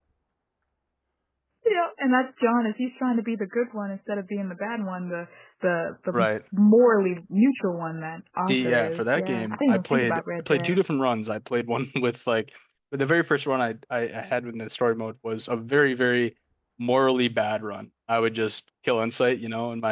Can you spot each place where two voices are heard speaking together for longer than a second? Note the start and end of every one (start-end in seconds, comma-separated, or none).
8.5-10.8